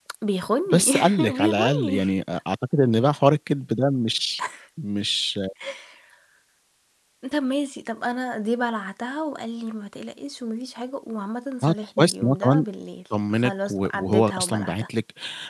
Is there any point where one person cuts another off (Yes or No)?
Yes